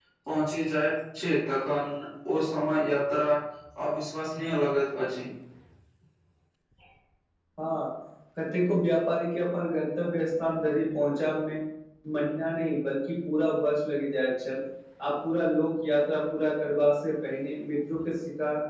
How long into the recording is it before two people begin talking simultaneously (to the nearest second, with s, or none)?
none